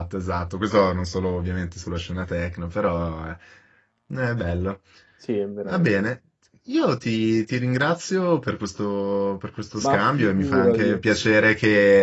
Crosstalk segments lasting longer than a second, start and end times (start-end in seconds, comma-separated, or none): 9.8-11.0